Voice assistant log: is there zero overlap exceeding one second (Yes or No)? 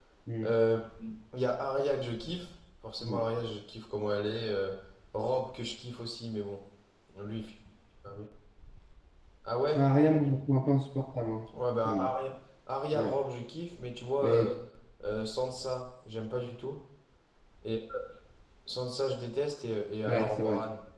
Yes